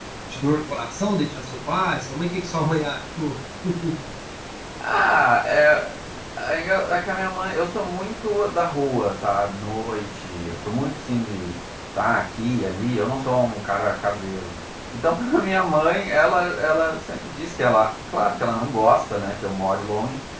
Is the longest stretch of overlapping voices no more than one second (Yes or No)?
Yes